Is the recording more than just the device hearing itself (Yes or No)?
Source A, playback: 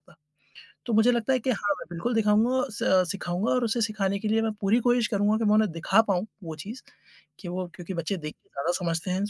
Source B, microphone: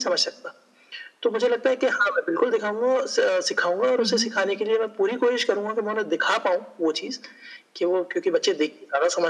Yes